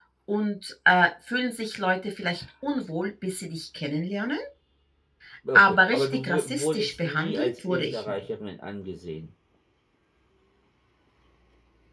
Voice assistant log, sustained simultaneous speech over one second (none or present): present